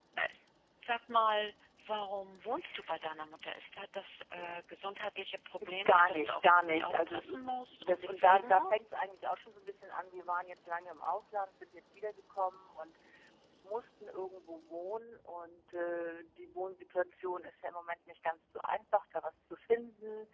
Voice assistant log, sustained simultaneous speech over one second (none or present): present